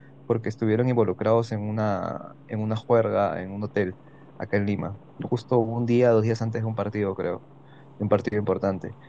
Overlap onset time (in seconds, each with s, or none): none